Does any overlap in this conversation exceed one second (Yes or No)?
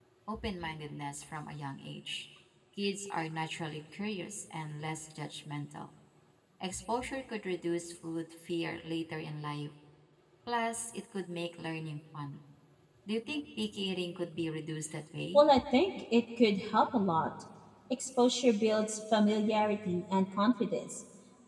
No